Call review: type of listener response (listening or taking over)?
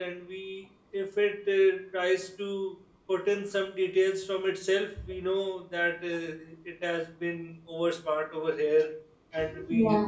listening